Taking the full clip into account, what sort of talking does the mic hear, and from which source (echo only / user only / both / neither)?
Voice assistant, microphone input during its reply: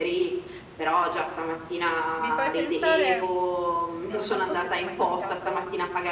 both